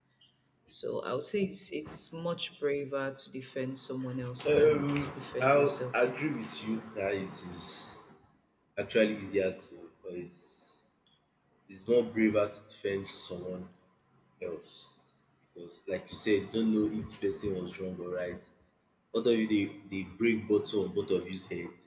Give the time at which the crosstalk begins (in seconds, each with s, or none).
4.4 s